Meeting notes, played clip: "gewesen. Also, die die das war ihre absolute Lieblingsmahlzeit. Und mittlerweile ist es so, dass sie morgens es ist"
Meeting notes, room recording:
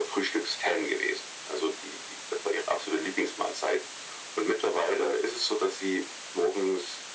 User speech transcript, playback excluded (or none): none